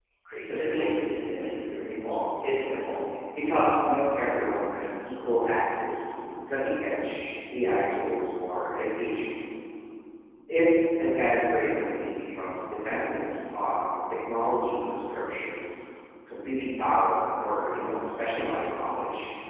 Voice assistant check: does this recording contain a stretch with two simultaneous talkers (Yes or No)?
Yes